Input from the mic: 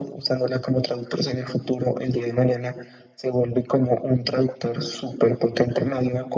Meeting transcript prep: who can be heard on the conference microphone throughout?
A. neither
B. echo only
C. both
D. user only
B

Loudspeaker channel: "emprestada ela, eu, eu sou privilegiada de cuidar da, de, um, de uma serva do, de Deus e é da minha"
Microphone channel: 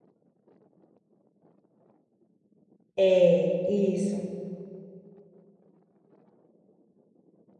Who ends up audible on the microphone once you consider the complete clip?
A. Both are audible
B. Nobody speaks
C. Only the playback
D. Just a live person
D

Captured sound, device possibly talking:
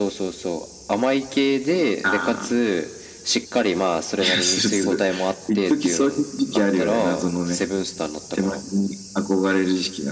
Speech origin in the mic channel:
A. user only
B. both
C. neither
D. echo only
D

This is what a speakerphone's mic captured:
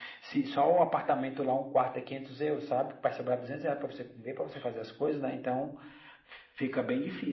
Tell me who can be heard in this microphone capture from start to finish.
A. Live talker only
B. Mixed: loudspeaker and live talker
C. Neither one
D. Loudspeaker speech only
D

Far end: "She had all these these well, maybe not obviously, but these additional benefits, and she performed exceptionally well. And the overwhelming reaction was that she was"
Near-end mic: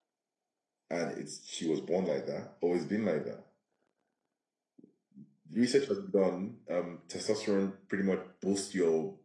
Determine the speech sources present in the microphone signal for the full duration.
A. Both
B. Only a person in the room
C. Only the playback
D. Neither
B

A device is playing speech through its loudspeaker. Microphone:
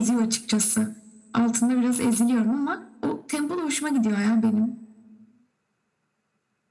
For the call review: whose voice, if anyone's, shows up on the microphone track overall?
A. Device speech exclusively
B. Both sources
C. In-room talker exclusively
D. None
A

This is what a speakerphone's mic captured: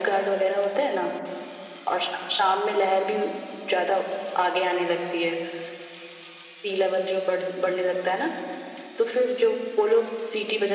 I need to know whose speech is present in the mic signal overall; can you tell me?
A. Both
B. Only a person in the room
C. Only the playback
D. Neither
C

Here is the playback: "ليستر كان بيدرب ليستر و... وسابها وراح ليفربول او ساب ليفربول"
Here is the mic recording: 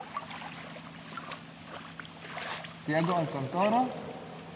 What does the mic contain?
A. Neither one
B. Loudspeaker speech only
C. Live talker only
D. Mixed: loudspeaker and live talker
C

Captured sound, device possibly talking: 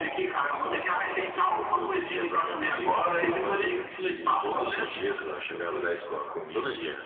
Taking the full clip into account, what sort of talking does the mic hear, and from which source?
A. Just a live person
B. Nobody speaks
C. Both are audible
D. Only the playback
C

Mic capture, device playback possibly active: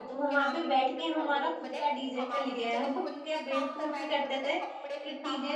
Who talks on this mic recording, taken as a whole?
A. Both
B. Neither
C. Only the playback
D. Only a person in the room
A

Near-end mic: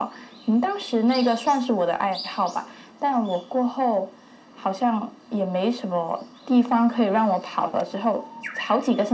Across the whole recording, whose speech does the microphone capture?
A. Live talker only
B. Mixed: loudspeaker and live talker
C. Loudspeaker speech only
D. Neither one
C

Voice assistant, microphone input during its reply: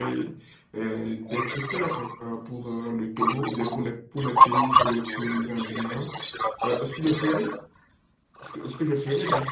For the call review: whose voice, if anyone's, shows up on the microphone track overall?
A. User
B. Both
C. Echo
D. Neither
B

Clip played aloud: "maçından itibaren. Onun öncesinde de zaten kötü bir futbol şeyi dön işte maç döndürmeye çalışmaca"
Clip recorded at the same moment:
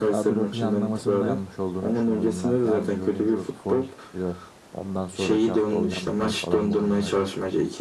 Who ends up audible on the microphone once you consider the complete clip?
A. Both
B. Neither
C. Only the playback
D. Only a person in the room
A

